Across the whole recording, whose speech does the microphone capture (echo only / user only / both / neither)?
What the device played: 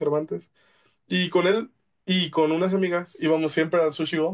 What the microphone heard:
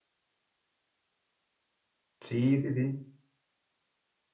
user only